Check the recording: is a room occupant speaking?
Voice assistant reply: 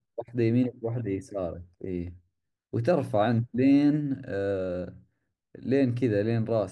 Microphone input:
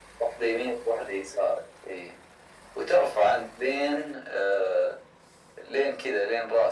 No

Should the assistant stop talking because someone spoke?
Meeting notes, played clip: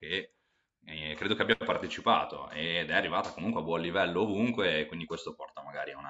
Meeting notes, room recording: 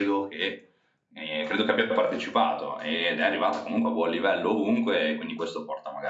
No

